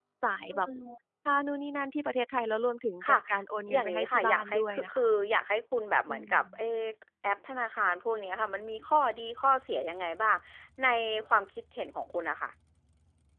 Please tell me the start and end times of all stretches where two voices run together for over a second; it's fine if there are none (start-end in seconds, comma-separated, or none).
3.7-5.0